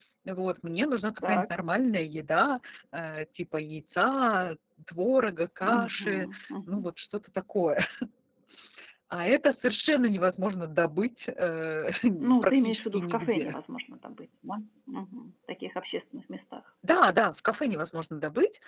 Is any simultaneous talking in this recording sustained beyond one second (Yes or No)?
Yes